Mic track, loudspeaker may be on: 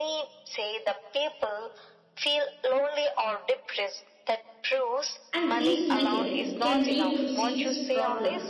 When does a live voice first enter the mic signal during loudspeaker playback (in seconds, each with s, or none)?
5.3 s